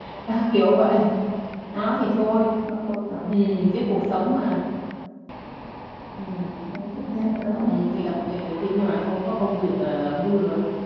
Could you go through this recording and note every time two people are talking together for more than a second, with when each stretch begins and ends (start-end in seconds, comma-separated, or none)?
none